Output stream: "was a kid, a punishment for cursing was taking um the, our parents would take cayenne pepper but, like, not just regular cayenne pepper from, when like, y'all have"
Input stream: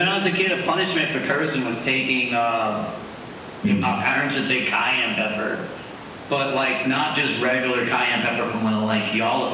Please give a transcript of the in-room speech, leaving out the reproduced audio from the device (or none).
mm.